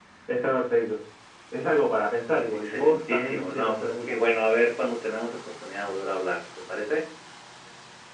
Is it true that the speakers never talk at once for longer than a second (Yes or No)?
No